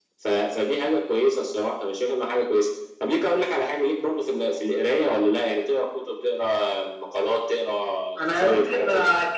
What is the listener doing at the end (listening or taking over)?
taking over